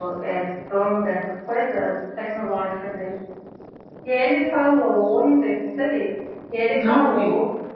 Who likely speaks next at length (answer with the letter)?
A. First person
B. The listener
A